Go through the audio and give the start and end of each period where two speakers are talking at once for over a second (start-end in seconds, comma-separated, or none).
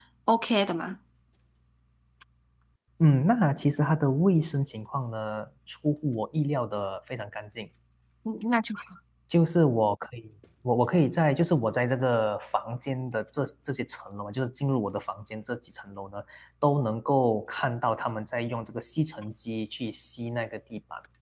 none